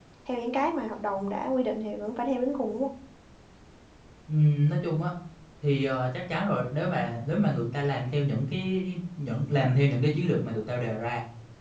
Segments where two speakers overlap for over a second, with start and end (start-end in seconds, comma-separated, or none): none